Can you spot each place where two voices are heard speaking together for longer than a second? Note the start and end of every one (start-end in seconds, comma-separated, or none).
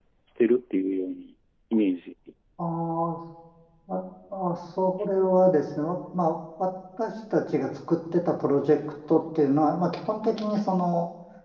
none